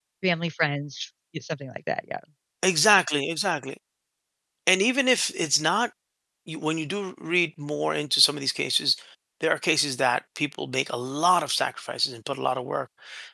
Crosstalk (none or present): none